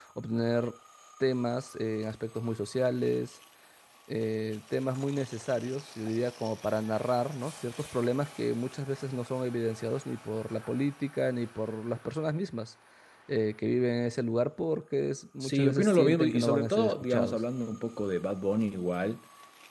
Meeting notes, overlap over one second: present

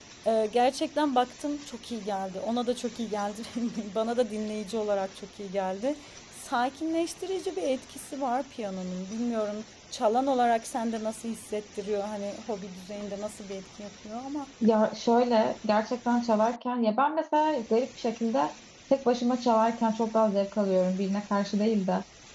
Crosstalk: none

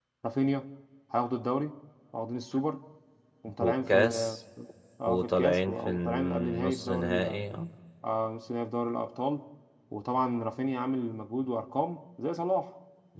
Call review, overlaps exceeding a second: present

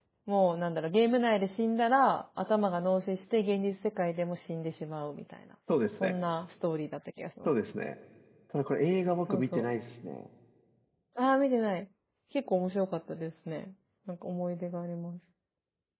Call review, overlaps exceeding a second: none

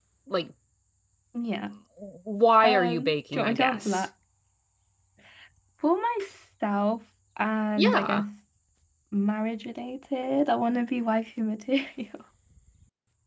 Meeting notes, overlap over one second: present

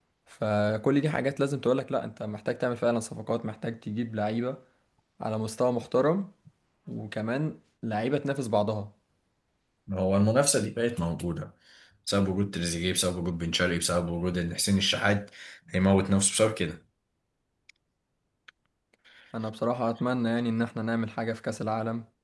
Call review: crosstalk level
none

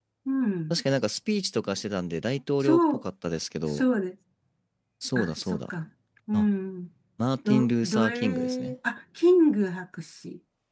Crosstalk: present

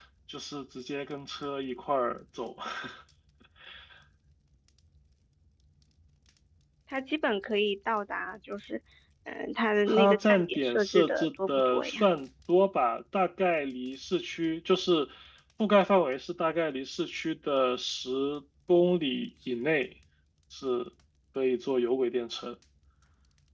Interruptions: present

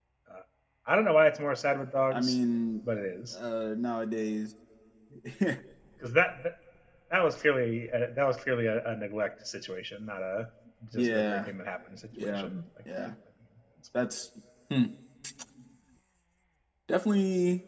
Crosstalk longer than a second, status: none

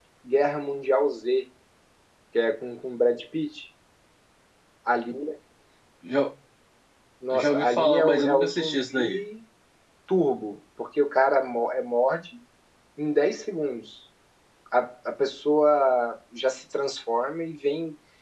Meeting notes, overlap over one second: present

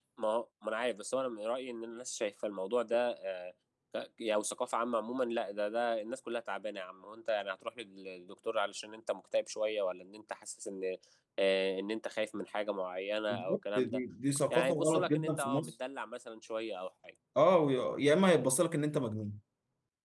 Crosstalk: present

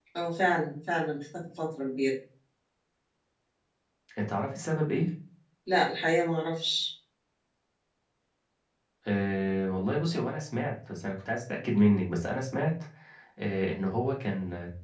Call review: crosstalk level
none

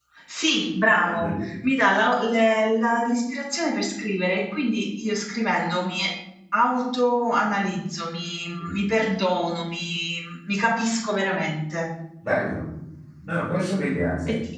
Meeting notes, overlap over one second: none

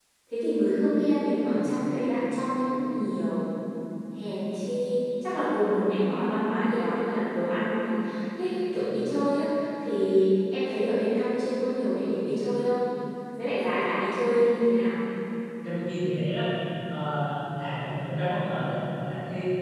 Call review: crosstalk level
none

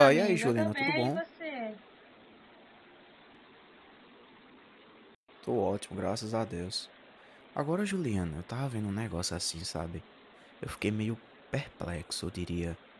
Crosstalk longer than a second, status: present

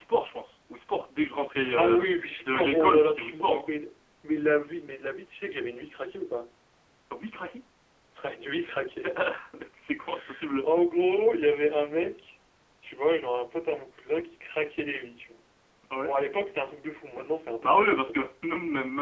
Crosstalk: present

